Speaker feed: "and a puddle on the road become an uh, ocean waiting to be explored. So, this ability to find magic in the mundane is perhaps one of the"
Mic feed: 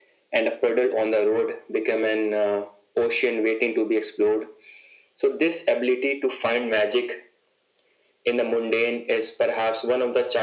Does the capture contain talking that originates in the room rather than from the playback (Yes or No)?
No